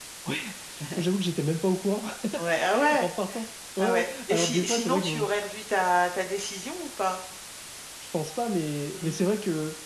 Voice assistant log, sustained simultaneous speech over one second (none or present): present